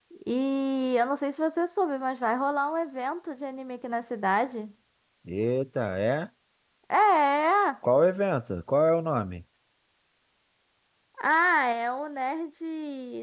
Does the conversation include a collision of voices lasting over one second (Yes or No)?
No